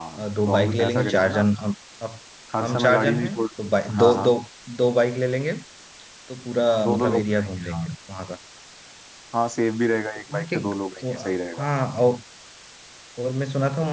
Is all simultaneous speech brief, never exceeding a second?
No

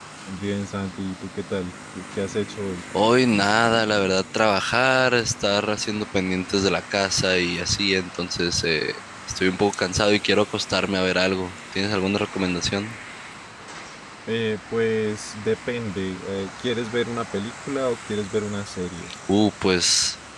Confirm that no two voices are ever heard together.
Yes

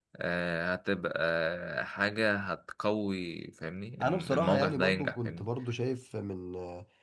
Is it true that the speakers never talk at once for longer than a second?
No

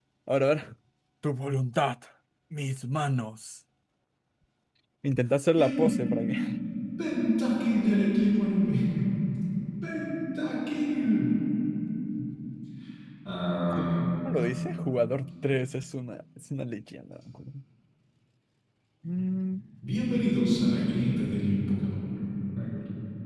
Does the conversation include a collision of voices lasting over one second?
No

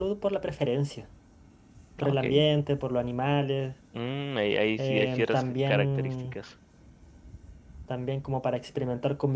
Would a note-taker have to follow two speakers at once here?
Yes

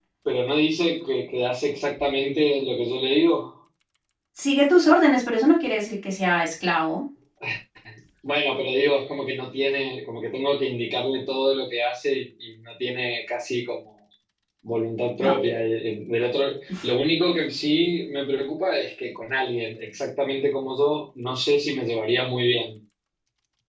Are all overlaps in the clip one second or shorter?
Yes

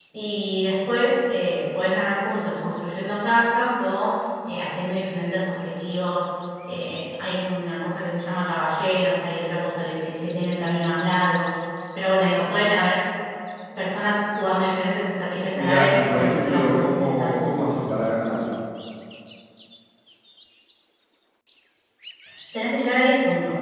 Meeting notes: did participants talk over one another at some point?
Yes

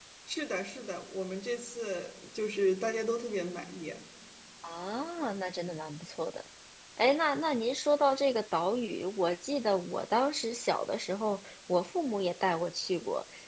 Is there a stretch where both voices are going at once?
No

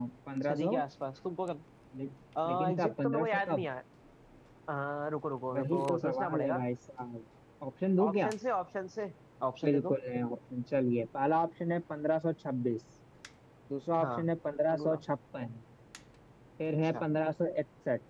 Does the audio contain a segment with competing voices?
Yes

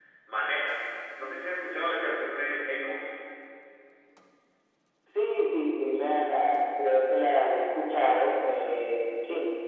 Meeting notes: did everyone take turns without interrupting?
Yes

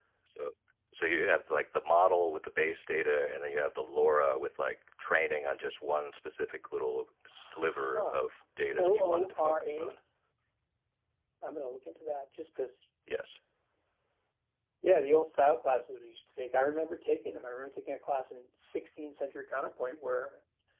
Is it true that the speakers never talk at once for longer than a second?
No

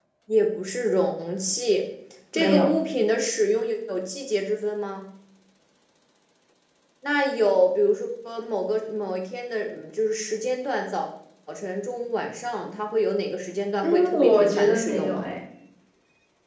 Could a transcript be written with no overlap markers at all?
No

